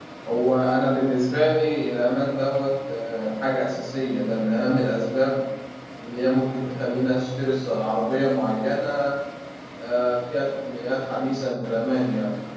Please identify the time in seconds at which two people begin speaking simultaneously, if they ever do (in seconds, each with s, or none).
none